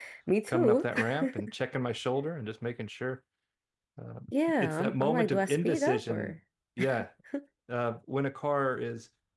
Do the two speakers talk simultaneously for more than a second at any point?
Yes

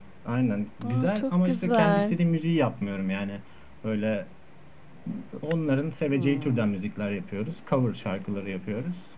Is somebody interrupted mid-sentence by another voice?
Yes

